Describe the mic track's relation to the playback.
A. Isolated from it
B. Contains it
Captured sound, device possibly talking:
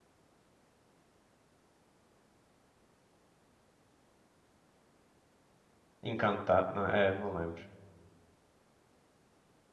A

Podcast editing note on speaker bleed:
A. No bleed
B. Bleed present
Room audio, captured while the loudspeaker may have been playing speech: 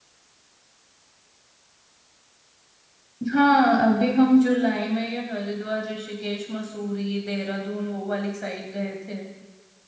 A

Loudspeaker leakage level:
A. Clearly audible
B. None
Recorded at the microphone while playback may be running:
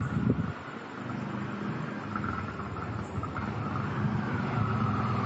B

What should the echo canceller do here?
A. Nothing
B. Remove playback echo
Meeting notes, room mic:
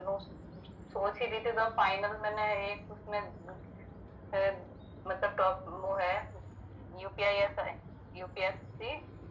B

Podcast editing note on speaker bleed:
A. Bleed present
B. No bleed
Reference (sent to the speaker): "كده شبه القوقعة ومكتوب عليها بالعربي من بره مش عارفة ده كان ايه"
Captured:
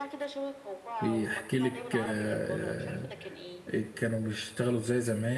A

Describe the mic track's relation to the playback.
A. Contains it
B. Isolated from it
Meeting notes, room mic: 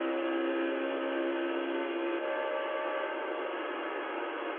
B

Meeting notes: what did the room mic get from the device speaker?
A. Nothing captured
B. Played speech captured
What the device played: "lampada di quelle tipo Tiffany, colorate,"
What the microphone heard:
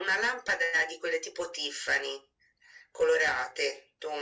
B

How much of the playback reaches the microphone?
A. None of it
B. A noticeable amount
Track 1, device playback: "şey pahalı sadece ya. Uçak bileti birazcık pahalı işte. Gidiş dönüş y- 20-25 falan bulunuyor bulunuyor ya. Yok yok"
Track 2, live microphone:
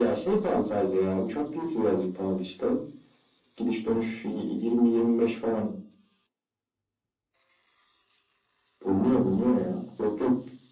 B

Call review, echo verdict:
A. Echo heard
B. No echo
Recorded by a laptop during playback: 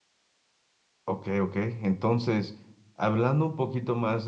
B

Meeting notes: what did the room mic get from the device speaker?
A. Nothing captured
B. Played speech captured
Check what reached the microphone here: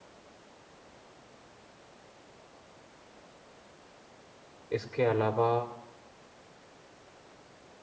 A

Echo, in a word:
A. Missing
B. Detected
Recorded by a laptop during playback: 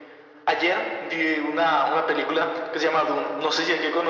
B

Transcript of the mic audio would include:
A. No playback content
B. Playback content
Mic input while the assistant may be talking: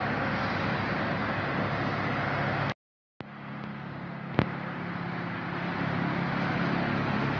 A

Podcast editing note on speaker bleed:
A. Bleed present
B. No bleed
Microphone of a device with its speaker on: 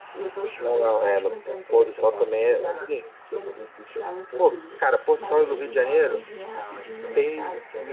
A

